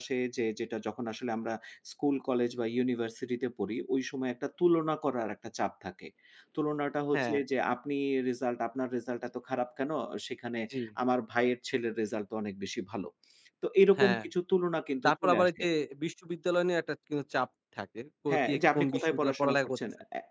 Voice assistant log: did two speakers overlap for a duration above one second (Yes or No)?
Yes